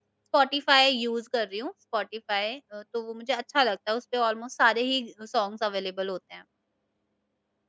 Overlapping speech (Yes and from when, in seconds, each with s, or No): No